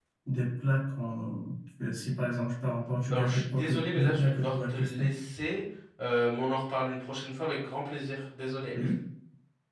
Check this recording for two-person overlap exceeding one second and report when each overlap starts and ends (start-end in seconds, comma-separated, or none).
3.1-5.1